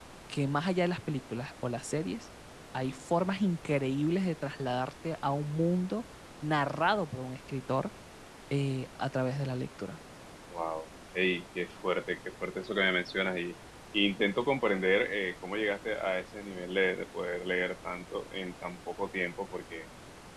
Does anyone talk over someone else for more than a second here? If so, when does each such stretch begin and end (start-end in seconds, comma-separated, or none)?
none